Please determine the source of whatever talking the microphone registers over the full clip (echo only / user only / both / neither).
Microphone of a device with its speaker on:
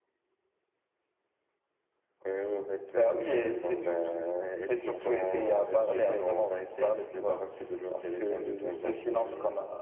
echo only